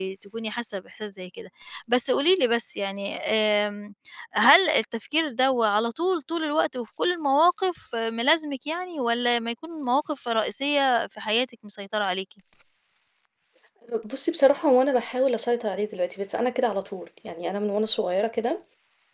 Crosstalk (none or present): none